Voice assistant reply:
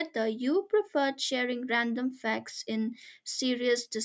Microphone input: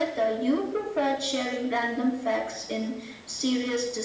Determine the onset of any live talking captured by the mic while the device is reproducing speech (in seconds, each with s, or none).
none